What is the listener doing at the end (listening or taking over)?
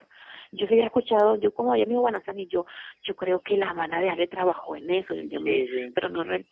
listening